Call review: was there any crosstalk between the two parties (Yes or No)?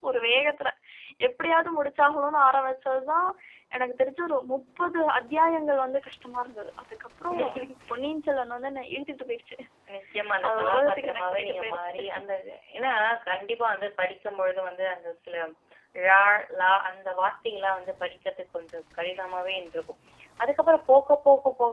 Yes